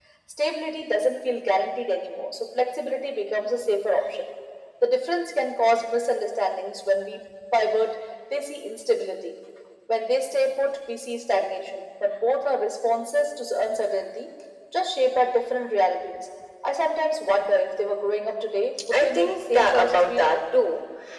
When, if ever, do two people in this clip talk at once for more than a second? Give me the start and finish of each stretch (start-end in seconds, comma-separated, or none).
18.9-20.4